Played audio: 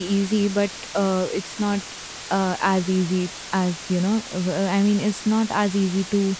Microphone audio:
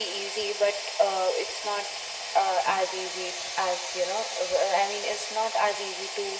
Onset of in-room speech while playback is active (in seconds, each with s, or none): none